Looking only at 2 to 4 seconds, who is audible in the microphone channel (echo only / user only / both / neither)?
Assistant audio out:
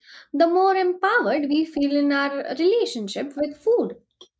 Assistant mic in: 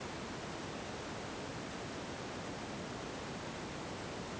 neither